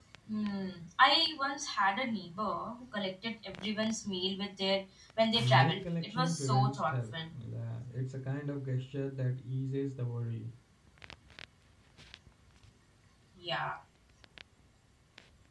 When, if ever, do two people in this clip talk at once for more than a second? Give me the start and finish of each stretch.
5.4-7.1

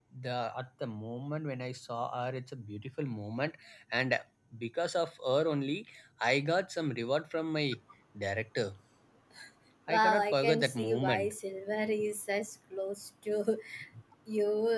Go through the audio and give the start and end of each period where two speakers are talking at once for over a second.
9.9-11.3

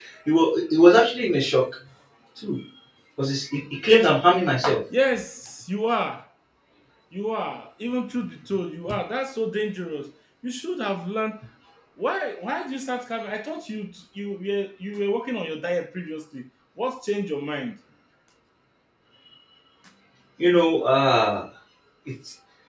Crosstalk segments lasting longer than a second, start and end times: none

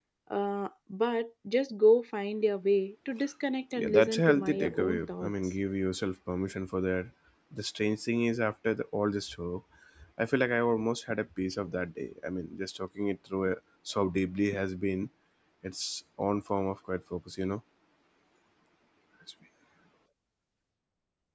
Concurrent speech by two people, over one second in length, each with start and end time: 3.7-5.3

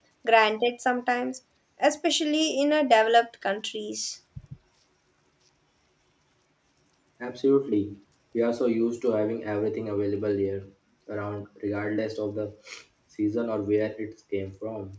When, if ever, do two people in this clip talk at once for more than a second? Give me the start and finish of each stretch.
none

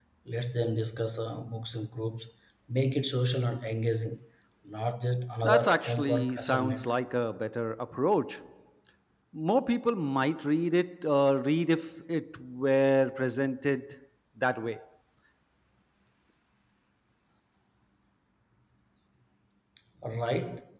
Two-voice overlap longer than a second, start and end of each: 5.4-6.9

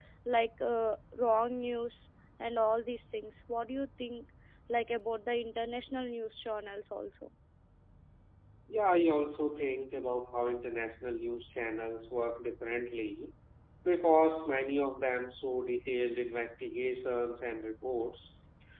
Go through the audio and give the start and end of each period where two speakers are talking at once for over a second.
none

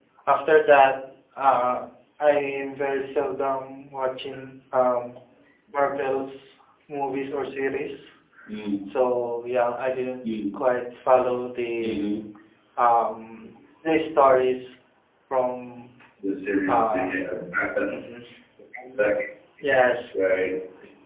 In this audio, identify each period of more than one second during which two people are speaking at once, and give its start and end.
none

